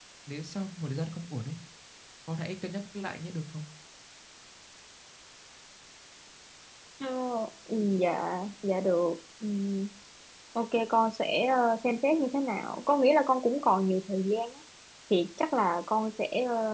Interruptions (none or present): none